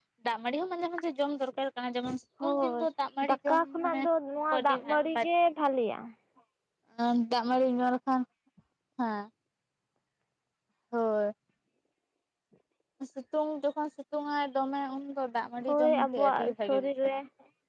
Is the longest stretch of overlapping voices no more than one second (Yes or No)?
No